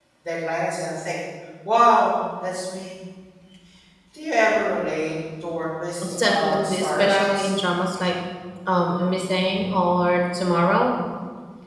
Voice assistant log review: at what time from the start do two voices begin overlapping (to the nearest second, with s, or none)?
6 s